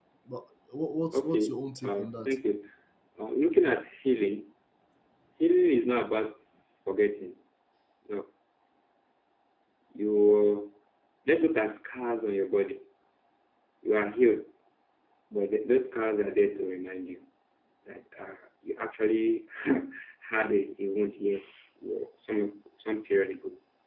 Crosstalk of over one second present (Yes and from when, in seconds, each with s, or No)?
Yes, from 1.1 s